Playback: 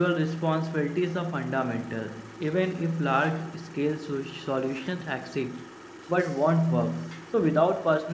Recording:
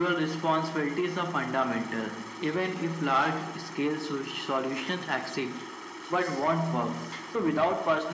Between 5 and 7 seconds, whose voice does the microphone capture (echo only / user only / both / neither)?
echo only